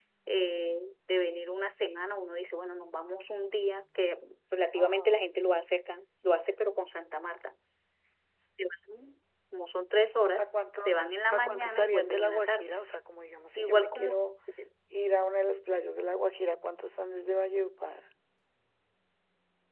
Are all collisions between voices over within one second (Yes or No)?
No